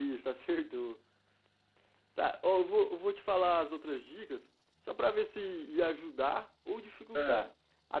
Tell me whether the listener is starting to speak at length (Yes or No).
No